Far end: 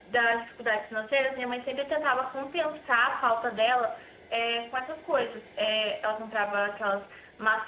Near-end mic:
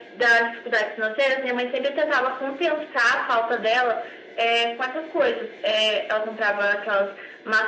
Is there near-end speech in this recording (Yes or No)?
No